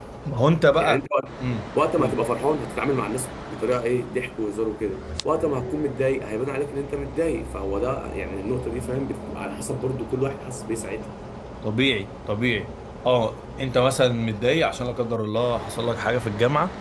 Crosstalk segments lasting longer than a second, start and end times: none

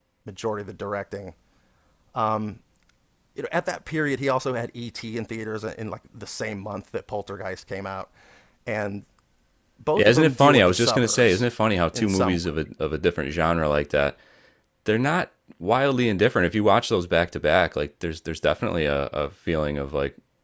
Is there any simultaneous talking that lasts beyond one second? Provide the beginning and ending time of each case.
10.0-11.4

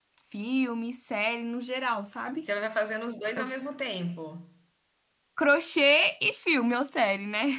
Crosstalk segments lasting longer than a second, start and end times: none

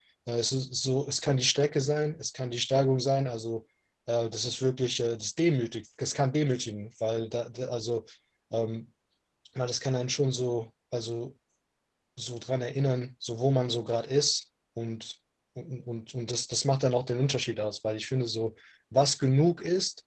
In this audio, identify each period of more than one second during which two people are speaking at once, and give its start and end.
none

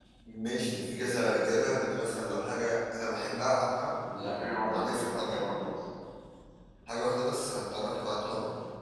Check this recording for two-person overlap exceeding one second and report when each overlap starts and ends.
4.2-5.4

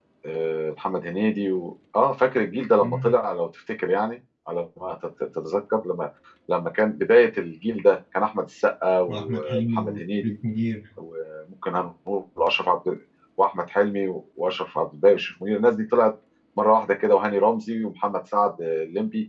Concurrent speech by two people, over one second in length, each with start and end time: 9.1-10.3

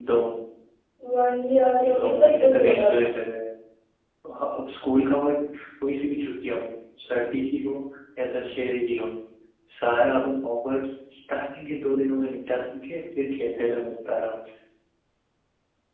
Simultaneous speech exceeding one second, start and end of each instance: 1.8-3.1

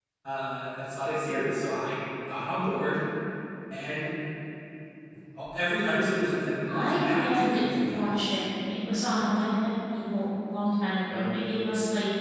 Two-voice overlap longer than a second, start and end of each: 6.7-8.4

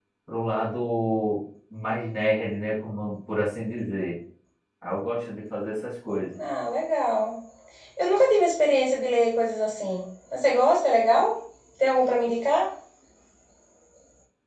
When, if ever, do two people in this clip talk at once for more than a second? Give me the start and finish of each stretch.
none

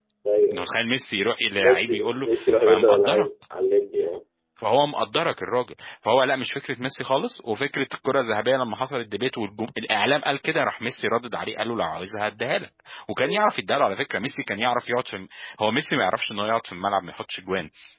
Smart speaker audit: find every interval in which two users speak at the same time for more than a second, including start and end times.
1.6-3.3

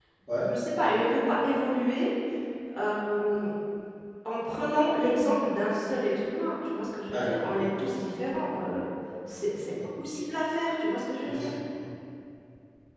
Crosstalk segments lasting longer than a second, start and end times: none

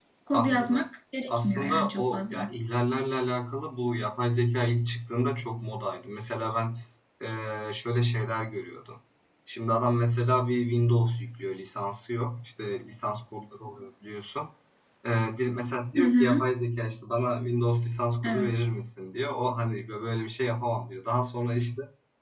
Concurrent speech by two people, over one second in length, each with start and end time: 1.3-2.5

